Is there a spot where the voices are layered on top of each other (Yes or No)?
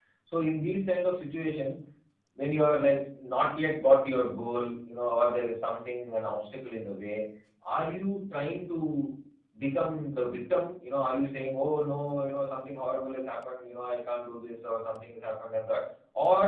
No